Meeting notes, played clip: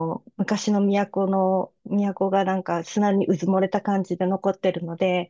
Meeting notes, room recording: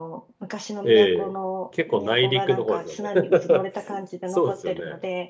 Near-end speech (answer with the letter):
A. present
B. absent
A